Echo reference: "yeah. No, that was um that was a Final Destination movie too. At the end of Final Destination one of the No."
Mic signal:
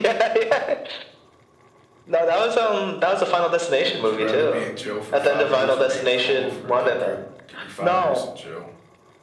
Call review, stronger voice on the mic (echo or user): echo